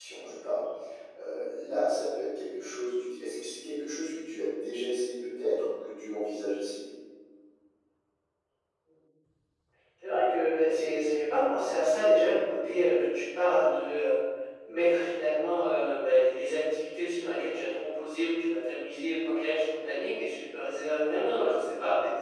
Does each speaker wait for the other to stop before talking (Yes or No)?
Yes